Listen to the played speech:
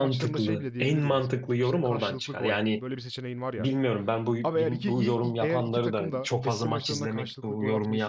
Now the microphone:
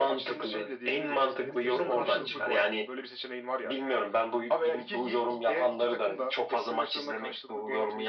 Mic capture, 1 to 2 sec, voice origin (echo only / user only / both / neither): both